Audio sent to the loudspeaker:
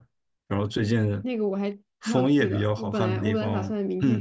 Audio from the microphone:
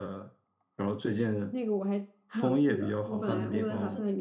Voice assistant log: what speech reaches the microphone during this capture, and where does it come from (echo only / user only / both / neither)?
both